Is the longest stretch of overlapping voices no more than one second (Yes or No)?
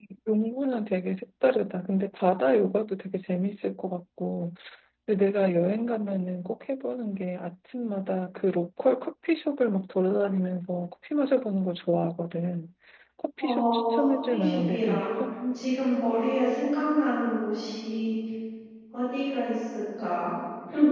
No